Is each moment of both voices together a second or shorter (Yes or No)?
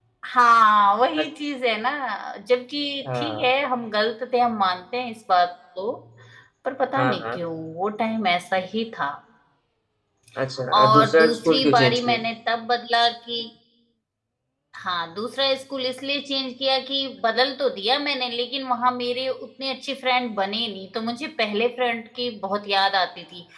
No